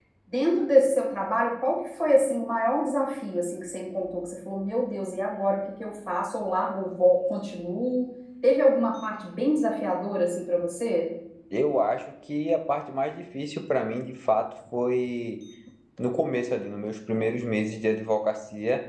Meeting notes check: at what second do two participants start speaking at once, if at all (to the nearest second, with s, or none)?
none